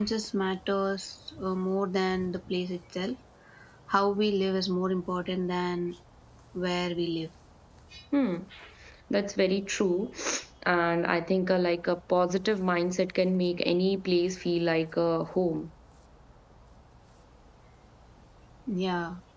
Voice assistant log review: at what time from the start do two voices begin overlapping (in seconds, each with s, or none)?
none